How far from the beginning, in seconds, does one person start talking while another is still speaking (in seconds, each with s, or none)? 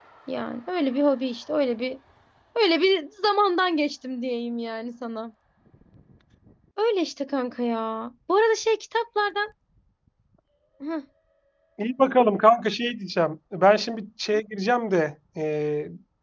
none